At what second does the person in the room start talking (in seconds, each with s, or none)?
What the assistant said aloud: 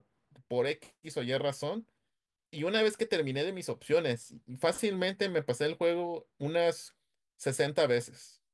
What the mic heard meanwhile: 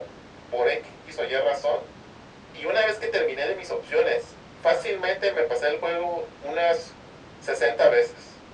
none